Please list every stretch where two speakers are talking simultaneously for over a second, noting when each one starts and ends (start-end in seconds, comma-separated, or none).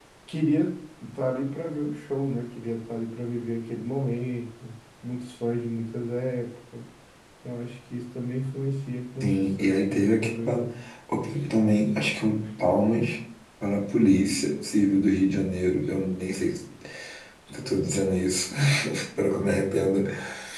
9.2-10.7